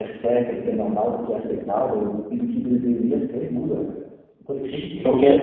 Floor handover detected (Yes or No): No